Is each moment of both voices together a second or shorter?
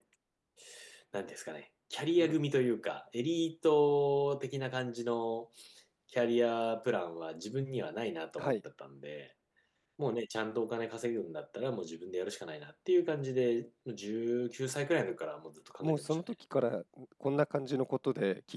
Yes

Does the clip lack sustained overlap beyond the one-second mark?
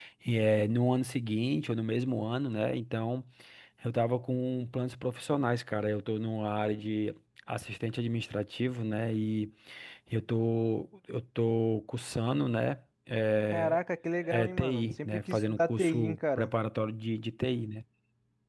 No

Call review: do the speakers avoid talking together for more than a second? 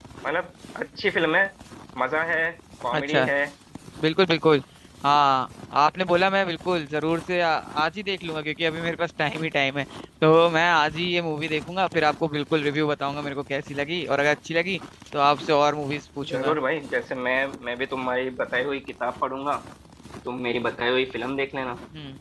Yes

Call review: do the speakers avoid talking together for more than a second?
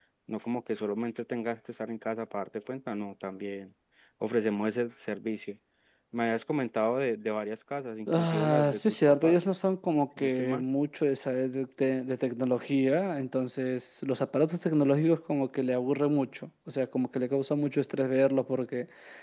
No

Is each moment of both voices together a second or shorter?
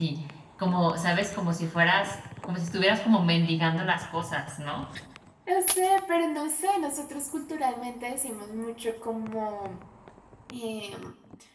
Yes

